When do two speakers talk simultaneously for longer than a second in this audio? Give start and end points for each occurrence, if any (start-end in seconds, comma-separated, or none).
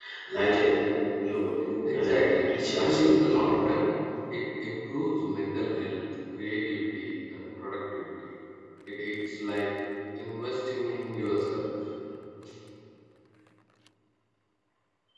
1.9-3.4